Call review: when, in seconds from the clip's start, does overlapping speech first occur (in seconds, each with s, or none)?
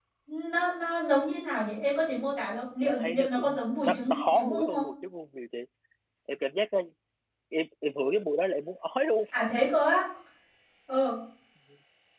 2.8 s